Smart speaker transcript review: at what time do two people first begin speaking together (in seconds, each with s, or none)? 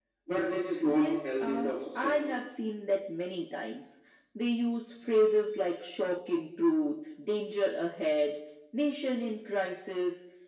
0.8 s